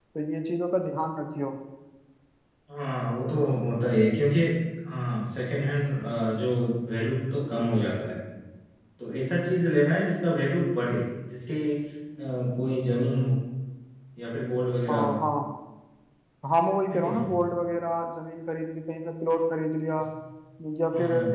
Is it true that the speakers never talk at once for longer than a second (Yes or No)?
Yes